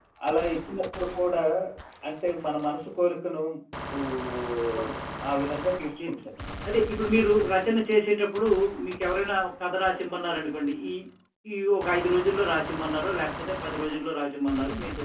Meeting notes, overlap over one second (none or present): none